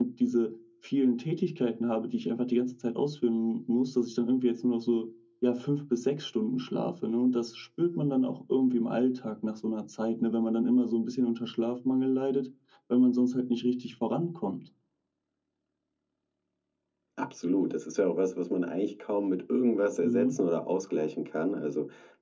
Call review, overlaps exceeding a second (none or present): none